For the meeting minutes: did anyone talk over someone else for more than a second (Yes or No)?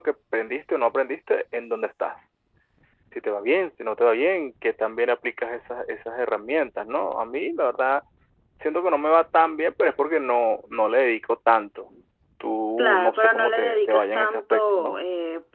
Yes